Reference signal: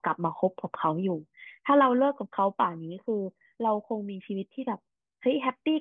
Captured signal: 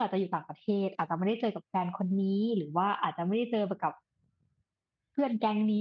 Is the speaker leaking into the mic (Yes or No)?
No